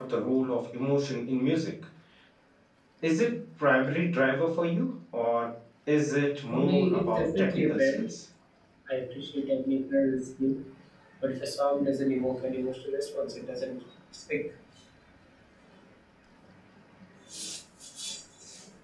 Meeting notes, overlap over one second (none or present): present